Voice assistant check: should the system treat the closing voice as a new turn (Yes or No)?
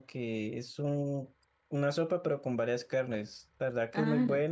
No